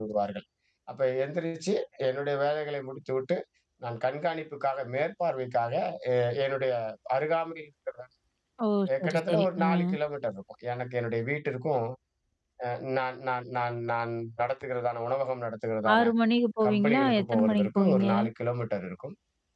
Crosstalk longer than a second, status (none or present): present